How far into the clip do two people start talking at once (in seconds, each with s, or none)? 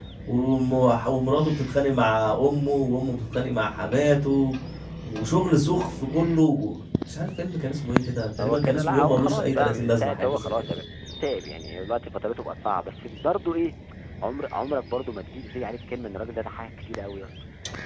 8.4 s